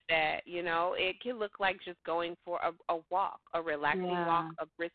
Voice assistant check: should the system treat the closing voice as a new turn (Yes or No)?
No